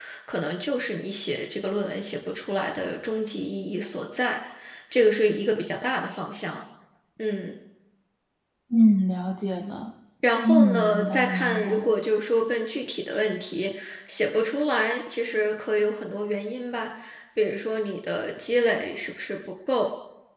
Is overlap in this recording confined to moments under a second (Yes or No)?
No